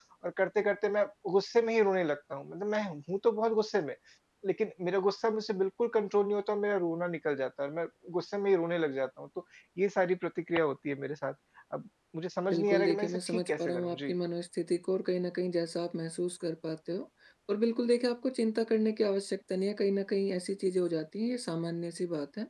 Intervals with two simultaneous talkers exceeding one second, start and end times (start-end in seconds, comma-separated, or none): 12.5-14.1